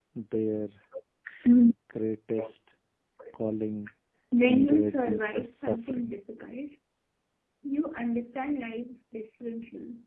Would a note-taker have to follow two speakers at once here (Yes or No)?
Yes